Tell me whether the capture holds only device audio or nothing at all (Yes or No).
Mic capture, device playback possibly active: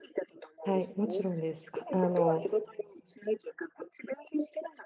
No